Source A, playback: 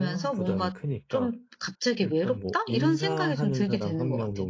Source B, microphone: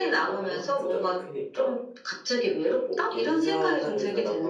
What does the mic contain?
echo only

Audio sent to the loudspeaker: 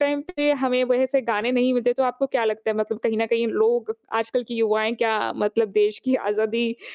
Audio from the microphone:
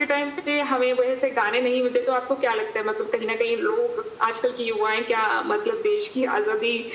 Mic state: echo only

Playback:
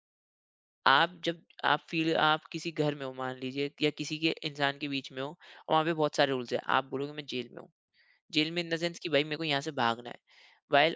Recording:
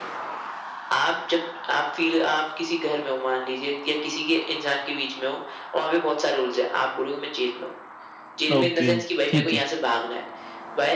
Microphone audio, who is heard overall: both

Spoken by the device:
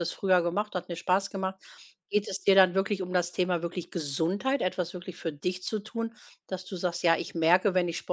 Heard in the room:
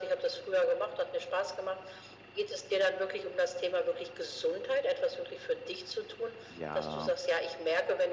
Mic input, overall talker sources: both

